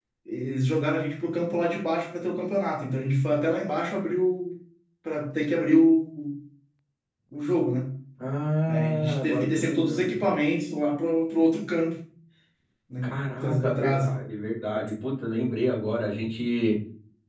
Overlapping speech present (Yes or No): Yes